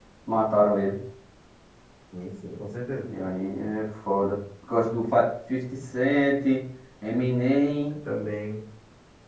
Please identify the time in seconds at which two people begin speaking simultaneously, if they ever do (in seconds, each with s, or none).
none